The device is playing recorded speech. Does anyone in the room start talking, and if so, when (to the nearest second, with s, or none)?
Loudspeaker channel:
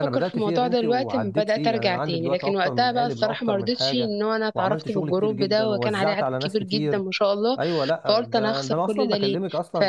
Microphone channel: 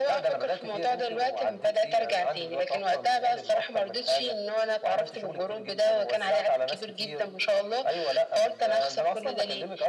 none